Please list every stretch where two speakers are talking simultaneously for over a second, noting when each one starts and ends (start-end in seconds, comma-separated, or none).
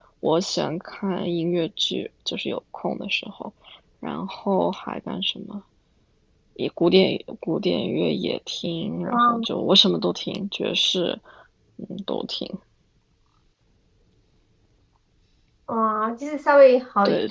none